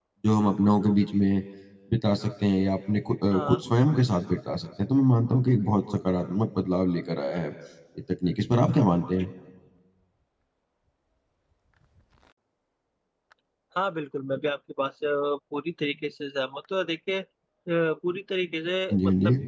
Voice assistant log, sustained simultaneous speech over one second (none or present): none